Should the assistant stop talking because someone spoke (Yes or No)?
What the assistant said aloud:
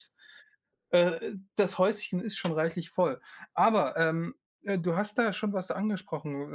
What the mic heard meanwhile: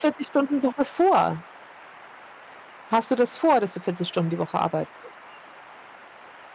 Yes